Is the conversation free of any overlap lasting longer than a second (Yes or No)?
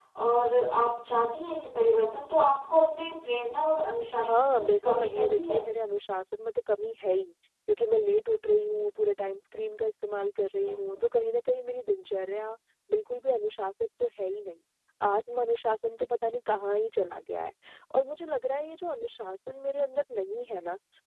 No